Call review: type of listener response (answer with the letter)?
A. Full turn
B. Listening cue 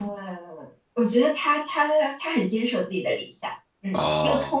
B